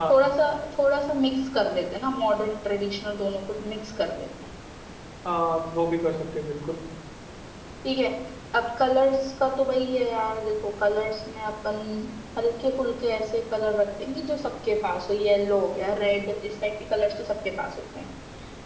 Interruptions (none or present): none